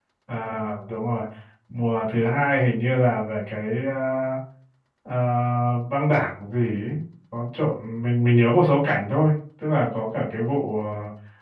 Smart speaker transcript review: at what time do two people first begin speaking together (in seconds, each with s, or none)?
none